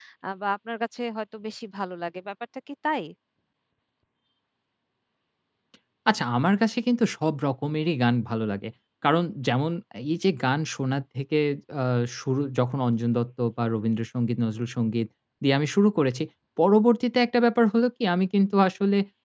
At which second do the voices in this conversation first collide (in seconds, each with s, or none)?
none